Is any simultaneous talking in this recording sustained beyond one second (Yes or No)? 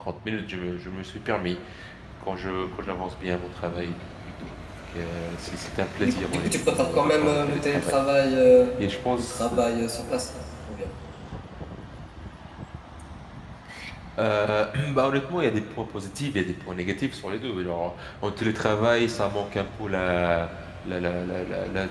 Yes